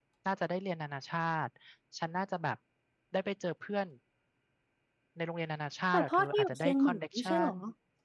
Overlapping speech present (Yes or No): Yes